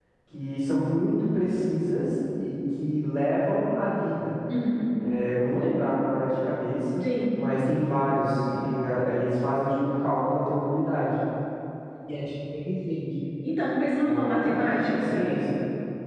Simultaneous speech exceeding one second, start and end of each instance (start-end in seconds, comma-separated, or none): 14.1-15.3